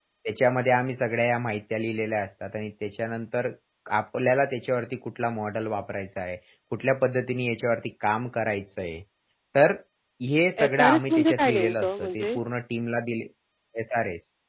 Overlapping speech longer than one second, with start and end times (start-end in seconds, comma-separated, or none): 10.6-12.4